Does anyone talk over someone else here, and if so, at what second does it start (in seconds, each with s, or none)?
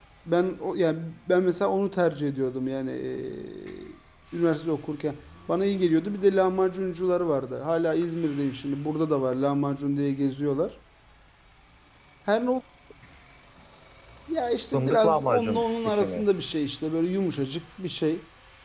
14.7 s